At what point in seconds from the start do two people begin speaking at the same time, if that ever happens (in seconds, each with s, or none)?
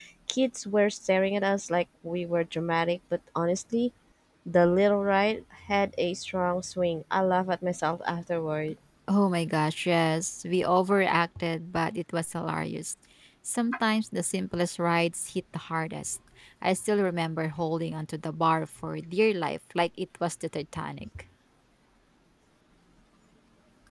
none